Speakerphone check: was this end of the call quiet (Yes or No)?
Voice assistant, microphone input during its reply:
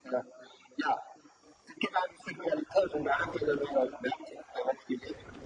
Yes